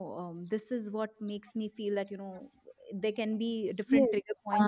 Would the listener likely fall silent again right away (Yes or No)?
No